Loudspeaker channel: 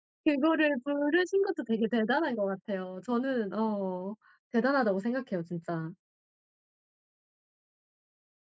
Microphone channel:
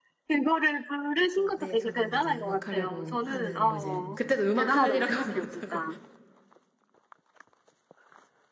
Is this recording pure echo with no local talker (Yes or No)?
No